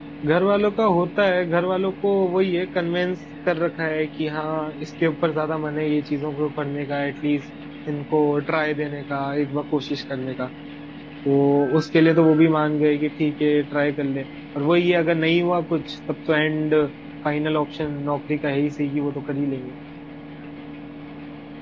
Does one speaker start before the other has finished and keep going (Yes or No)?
No